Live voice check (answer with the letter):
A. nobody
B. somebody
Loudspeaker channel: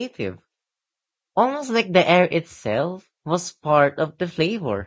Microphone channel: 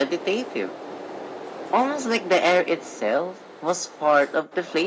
A